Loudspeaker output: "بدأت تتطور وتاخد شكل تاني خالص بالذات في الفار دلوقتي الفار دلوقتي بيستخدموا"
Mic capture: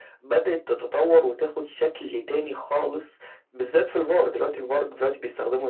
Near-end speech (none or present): none